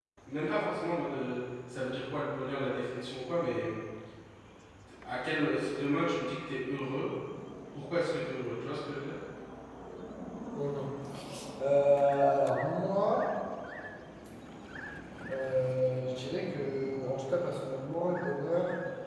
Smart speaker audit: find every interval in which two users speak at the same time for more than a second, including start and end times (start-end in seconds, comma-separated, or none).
none